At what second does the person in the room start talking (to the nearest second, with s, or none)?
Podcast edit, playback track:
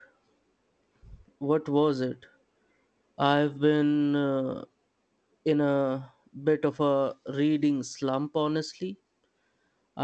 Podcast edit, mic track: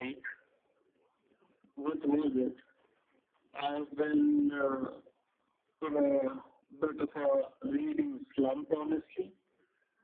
none